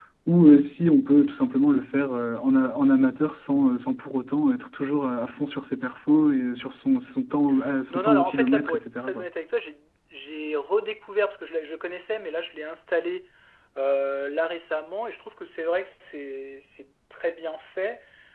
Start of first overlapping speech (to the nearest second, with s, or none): 8 s